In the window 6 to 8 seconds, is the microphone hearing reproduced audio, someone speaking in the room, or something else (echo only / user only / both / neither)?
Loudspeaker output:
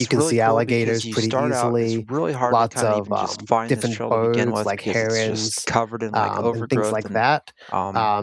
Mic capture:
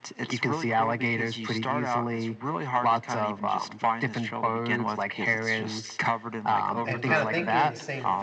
both